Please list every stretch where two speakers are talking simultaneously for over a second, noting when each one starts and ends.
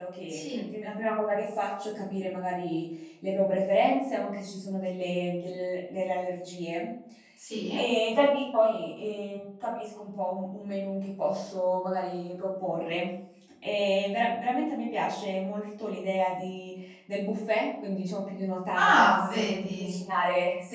18.8-20.0

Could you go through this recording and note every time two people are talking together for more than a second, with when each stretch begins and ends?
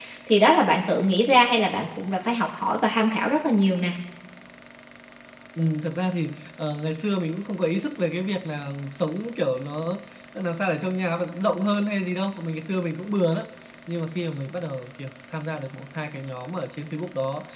none

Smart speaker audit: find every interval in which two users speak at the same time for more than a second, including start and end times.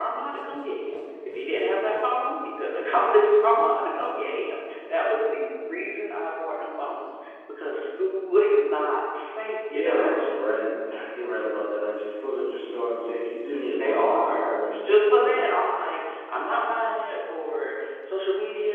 13.8-15.4

